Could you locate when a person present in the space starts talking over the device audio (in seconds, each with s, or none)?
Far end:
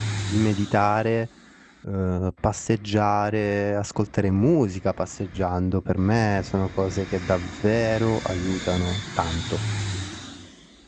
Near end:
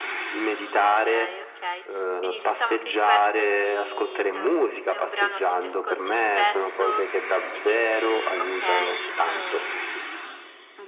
0.7 s